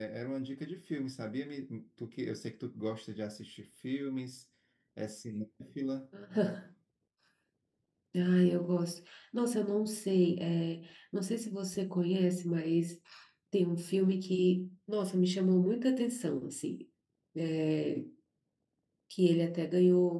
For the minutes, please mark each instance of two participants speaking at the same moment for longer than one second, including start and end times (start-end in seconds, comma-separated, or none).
none